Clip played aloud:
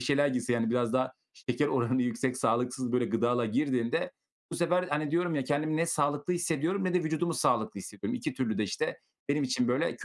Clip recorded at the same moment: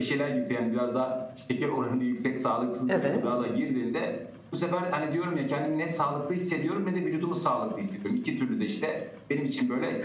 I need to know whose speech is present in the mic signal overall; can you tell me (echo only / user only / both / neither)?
both